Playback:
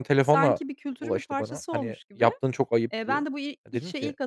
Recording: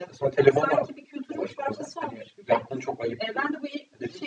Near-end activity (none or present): none